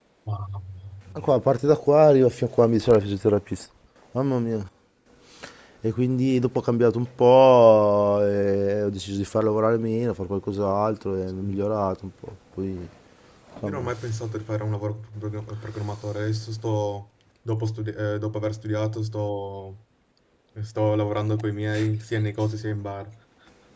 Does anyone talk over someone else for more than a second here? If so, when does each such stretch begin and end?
none

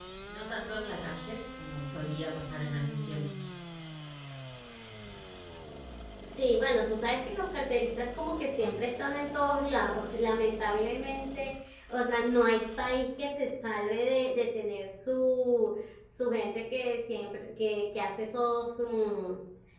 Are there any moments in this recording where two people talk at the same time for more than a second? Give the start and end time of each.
none

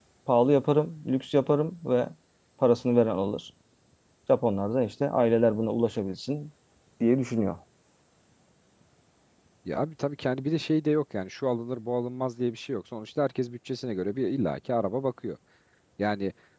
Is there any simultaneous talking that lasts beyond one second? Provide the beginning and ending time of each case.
none

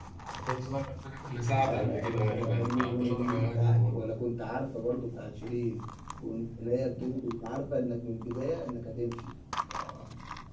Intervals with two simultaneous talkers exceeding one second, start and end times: 1.6-4.1

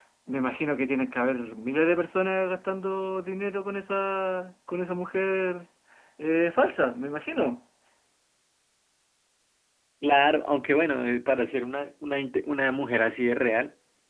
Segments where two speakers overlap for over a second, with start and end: none

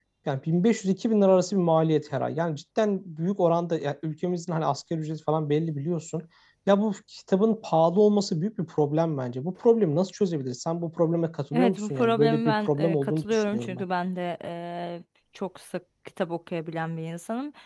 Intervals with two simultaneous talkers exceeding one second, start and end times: 11.5-13.8

